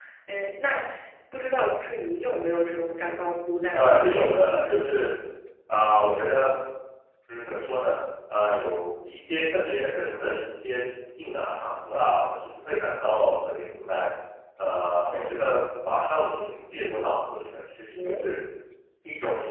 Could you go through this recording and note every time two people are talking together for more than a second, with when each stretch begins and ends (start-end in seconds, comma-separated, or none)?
3.7-5.0